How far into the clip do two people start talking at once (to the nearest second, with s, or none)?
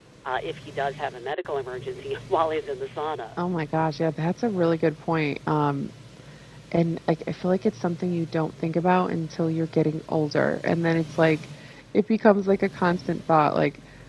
none